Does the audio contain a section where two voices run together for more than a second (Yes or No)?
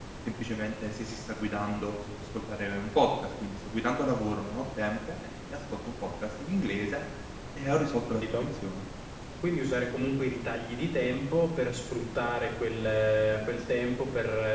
No